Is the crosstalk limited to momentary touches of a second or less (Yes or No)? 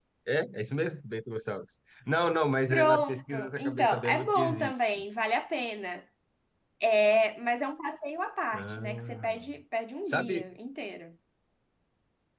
No